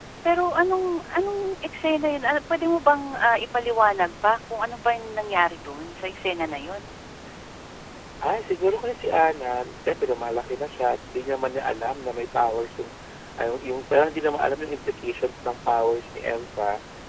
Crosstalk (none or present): none